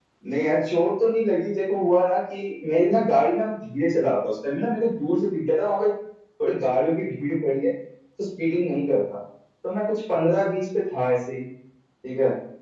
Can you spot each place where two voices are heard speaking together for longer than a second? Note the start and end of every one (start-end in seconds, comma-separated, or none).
none